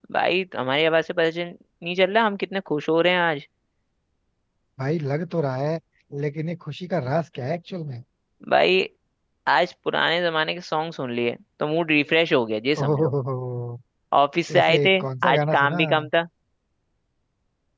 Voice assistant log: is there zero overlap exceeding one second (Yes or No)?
No